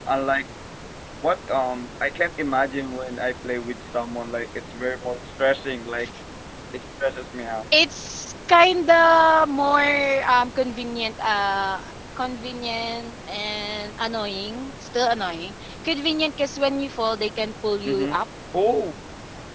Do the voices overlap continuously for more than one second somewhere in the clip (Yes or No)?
No